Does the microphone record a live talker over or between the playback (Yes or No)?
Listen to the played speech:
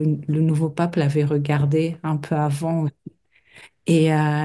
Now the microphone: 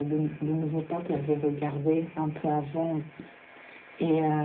No